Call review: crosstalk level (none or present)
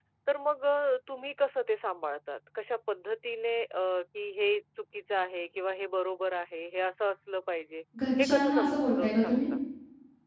present